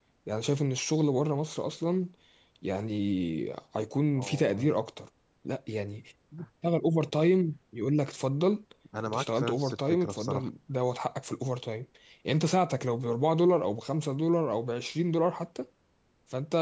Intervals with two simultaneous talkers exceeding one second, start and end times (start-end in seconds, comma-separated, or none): 9.1-10.5